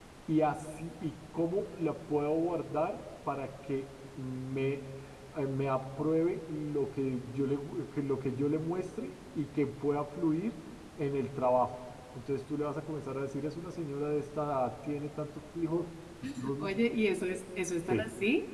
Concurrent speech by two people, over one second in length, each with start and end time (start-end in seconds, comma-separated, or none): none